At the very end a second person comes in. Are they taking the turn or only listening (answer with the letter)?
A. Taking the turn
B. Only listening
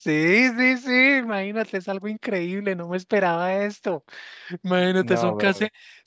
B